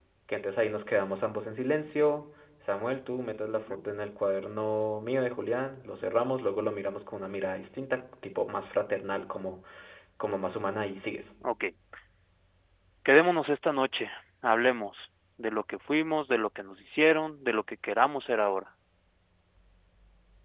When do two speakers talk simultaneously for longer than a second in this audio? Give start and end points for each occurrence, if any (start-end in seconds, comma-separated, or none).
none